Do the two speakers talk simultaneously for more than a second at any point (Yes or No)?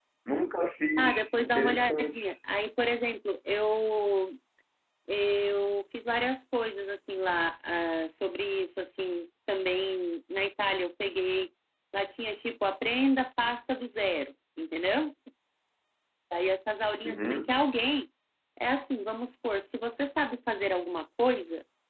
Yes